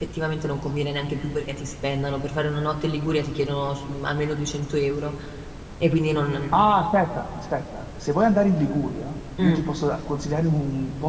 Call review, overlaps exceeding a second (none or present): none